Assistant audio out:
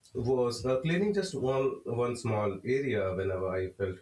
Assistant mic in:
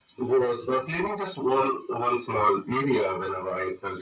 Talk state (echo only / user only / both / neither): echo only